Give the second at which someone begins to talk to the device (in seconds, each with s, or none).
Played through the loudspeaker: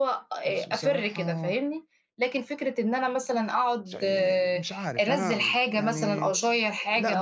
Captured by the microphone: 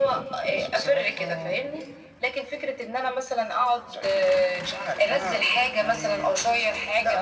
none